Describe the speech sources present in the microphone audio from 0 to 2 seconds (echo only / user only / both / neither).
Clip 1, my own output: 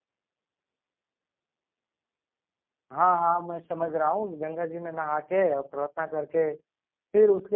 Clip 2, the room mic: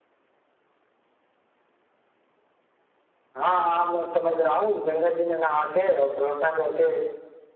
neither